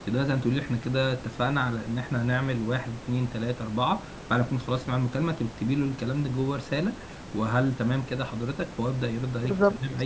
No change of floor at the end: Yes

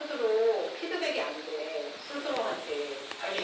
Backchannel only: Yes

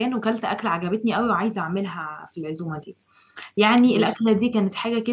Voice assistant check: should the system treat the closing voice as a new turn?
No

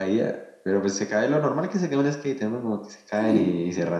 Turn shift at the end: No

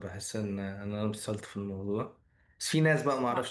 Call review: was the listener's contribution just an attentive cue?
Yes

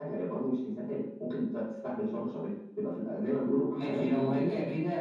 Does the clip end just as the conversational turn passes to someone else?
Yes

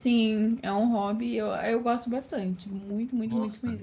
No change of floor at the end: Yes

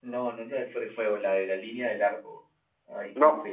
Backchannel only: No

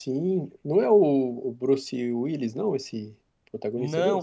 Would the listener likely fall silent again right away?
No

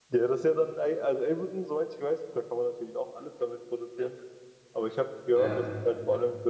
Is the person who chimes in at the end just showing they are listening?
Yes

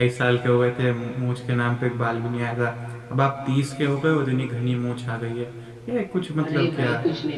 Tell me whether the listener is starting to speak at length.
Yes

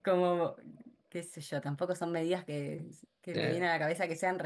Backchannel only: Yes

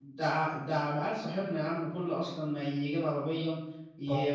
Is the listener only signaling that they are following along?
Yes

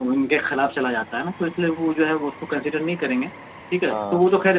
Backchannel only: Yes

